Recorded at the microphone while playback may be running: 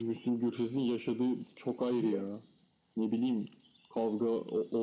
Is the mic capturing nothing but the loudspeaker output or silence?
No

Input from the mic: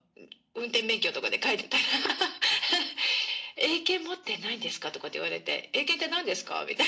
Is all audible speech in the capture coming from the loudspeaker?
Yes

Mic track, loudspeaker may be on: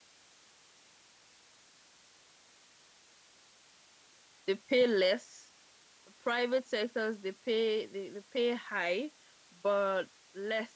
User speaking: Yes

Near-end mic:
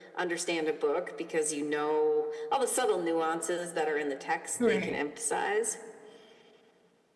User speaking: Yes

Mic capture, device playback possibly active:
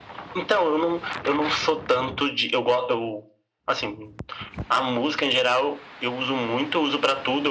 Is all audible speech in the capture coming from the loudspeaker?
Yes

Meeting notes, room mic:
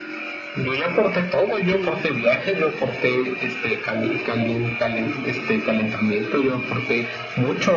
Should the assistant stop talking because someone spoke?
Yes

